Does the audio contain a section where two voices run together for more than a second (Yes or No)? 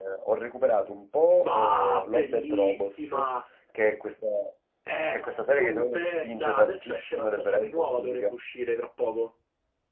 Yes